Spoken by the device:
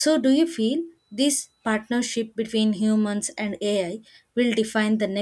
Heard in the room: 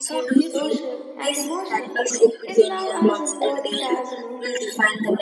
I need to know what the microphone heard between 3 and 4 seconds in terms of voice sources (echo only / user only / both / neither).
both